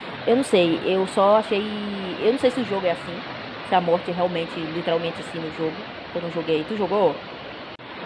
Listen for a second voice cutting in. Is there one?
No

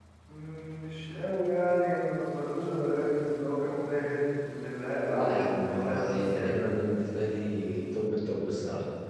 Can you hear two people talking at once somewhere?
Yes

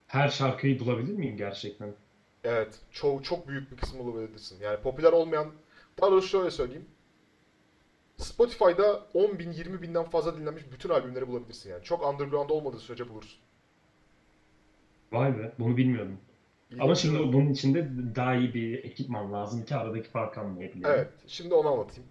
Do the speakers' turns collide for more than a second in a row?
No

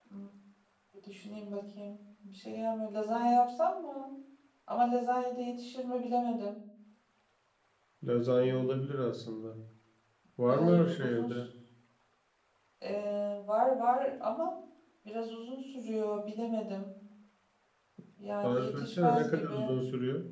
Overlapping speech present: Yes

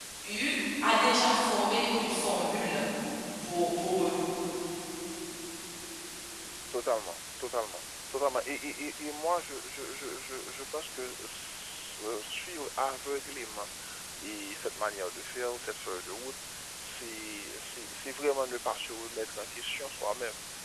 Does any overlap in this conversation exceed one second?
No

